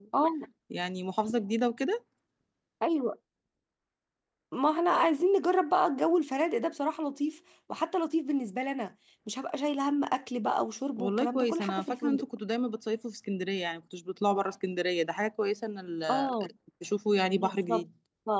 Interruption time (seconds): 11.0 s

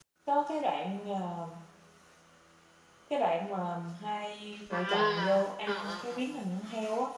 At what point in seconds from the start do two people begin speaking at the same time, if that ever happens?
4.7 s

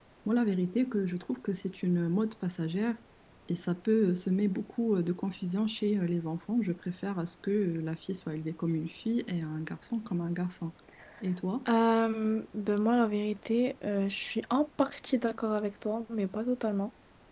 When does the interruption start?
none

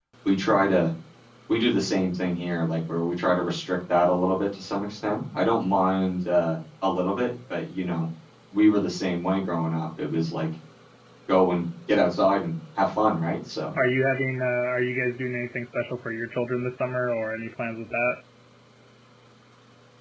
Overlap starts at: none

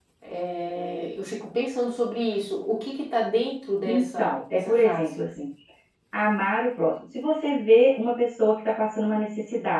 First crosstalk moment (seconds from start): 3.8 s

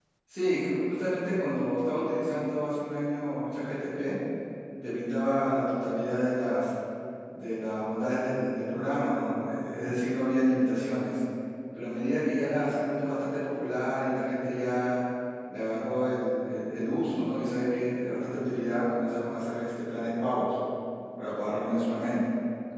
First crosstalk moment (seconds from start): none

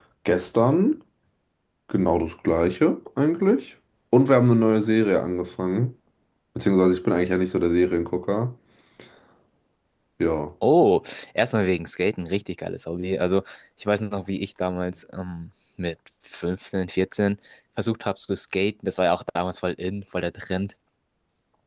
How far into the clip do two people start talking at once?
none

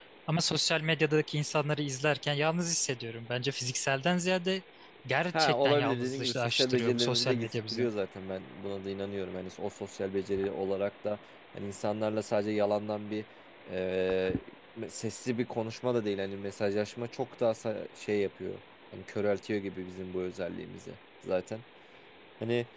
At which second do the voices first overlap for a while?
5.3 s

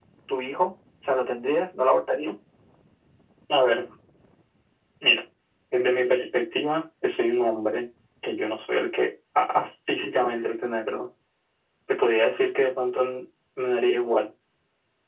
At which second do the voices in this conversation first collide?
none

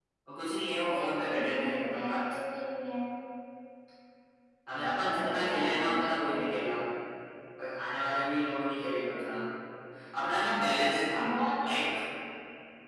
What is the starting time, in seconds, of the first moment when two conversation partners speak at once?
0.8 s

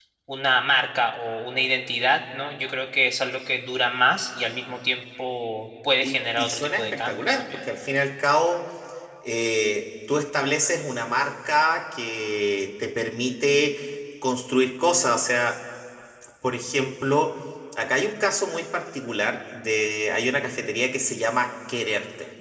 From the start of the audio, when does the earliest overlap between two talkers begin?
6.0 s

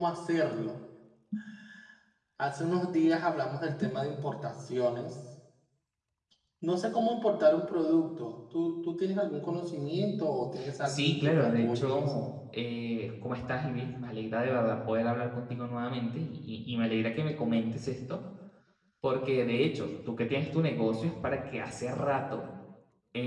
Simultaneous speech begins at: 10.9 s

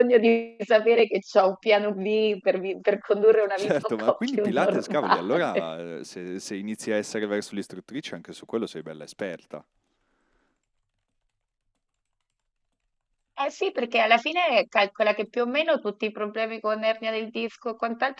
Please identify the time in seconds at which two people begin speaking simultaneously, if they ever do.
3.6 s

